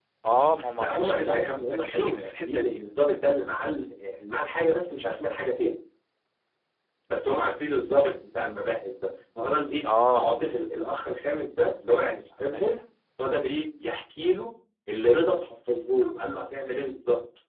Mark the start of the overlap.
1 s

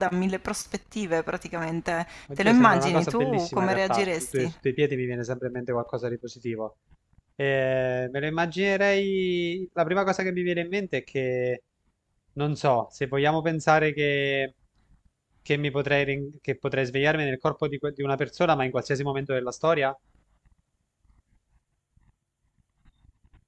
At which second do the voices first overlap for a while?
2 s

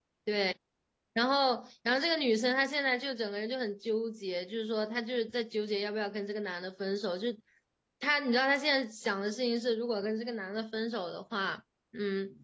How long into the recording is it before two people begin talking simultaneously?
none

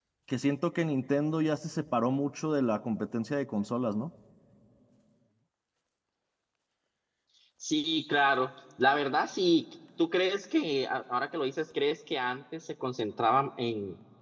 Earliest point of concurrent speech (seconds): none

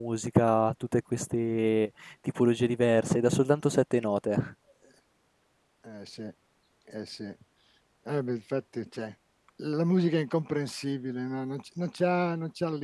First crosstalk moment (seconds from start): none

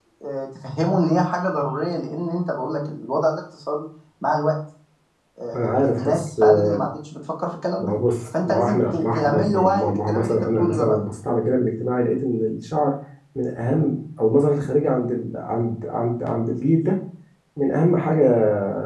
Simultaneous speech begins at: 6 s

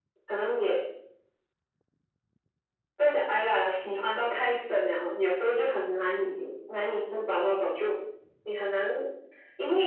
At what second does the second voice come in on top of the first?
none

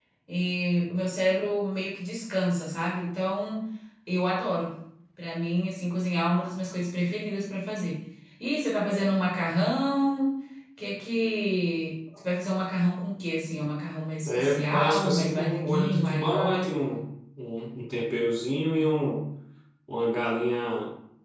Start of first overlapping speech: 14 s

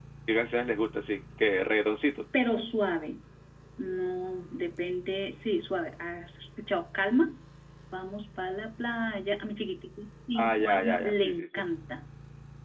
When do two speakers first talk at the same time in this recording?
10 s

